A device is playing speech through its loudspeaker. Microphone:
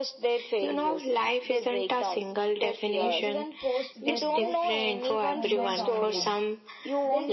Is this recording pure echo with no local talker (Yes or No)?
No